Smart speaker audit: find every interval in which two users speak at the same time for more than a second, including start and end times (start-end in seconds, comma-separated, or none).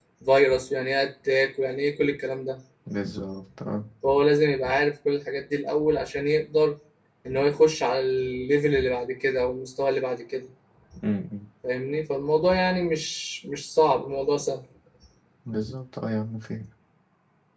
none